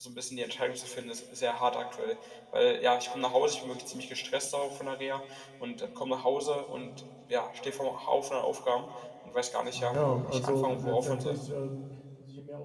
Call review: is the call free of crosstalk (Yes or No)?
No